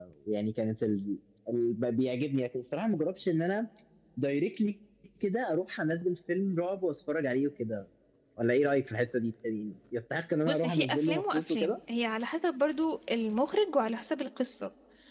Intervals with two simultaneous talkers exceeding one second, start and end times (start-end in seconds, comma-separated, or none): 10.5-11.7